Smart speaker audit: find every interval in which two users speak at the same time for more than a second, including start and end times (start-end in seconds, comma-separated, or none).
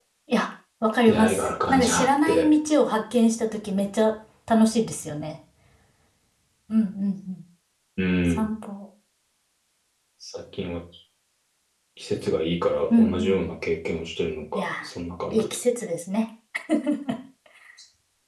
1.1-2.5